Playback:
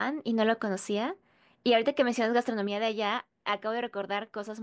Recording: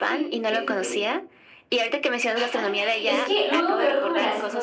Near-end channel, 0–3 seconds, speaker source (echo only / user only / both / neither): both